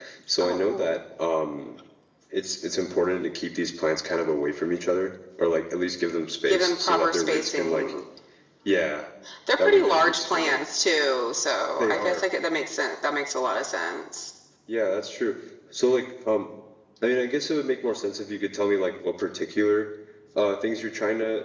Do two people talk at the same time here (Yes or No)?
Yes